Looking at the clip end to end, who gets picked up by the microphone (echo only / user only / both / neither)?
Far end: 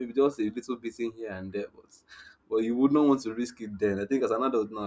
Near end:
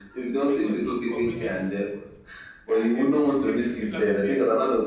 both